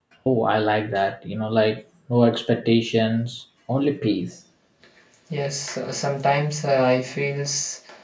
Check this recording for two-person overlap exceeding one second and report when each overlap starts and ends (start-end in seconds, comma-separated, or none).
none